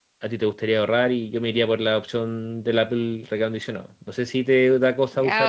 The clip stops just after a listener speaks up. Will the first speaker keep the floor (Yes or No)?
No